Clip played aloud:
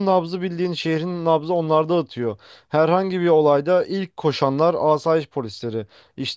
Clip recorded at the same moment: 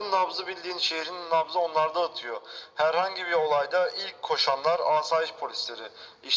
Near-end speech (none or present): none